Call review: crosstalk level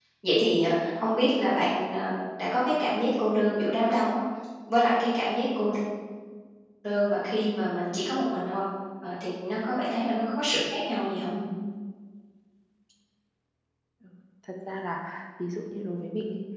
none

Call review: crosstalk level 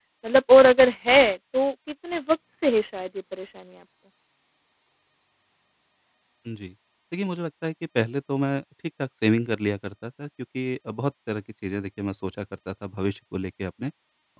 none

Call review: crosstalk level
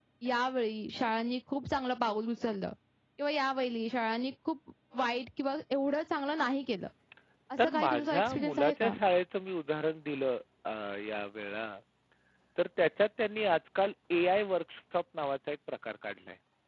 present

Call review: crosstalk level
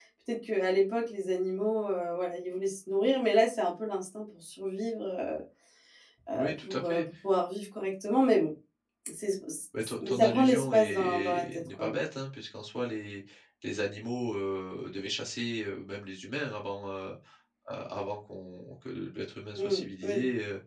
present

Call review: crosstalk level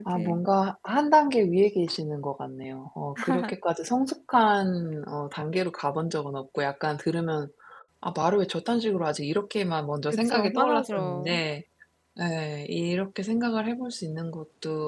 present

